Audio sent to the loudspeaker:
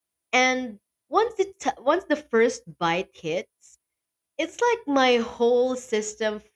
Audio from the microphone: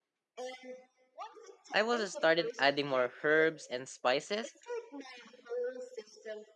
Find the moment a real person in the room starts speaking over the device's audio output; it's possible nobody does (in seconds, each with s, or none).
1.7 s